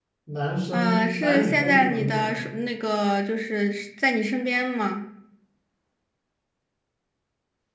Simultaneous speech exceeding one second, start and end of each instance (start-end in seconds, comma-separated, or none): 0.7-2.4